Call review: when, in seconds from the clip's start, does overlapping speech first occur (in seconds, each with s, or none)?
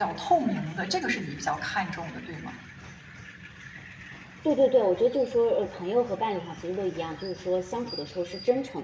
none